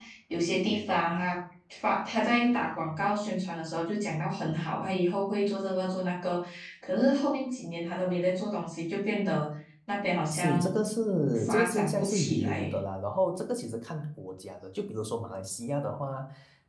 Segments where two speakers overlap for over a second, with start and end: 11.5-12.7

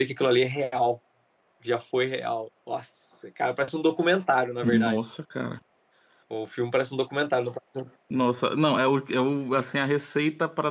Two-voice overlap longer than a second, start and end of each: none

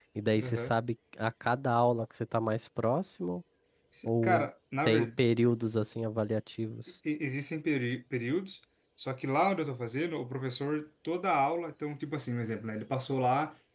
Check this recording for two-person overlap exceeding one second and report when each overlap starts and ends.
none

